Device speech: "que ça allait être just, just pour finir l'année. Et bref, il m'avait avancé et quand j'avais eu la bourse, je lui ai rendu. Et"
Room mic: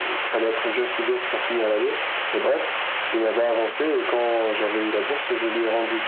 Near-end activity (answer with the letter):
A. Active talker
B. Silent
B